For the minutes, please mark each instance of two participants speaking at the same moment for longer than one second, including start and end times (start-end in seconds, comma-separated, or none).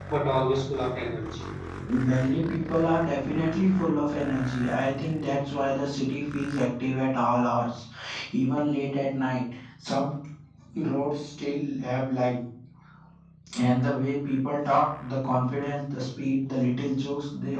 none